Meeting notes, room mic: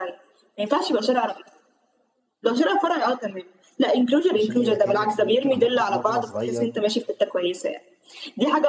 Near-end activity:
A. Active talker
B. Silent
A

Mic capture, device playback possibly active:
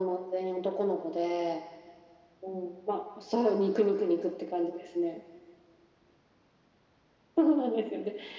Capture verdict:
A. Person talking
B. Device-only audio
B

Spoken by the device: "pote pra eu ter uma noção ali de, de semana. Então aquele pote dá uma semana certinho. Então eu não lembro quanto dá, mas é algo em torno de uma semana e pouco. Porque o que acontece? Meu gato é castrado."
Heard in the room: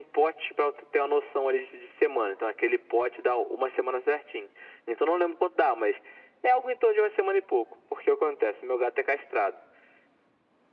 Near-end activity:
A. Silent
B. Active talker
A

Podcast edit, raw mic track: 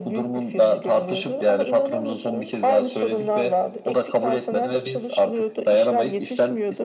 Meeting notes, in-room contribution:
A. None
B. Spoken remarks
A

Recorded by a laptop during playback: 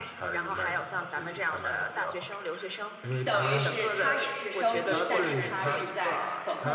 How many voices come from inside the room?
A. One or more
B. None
A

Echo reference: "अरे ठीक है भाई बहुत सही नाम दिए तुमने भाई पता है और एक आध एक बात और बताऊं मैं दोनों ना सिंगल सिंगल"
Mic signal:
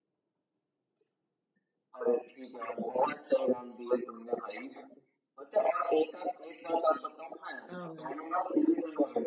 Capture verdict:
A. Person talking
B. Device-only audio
A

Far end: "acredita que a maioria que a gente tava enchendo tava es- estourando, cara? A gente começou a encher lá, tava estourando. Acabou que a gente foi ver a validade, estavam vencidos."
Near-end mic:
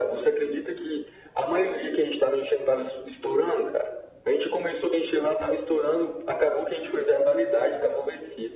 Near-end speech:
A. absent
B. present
A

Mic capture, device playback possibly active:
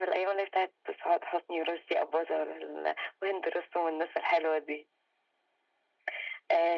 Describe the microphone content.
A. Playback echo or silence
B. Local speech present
A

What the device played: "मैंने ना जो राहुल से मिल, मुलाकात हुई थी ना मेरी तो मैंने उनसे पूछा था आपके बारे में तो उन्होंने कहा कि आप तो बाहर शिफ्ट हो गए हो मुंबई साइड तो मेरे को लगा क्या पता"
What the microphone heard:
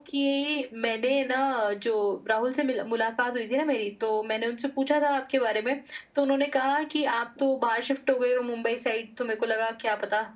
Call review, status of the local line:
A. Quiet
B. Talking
A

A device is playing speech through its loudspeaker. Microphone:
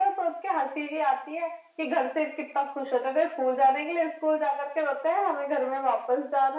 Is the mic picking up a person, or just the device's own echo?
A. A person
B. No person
B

